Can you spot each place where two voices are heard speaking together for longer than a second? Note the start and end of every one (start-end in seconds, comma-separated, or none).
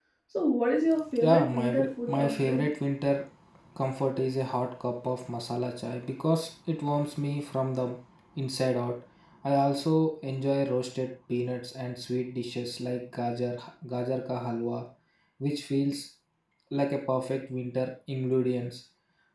1.2-2.6